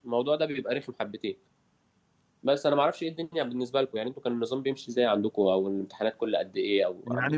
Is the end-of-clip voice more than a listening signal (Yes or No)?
Yes